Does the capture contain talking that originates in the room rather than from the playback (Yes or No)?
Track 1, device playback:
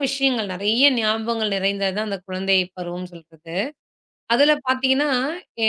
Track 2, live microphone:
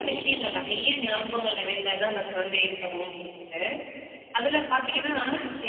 No